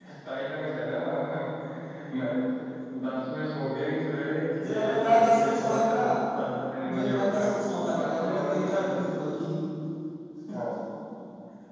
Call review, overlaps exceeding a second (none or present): present